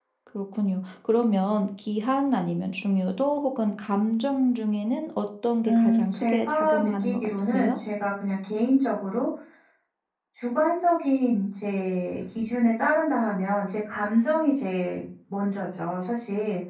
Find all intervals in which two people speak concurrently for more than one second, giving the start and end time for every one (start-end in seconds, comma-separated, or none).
5.7-7.8